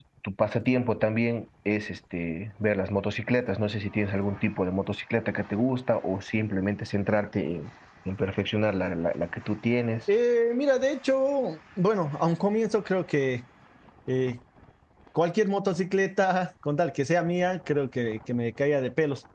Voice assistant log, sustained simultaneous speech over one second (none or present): none